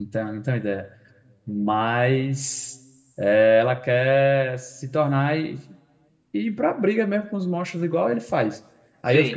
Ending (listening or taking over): listening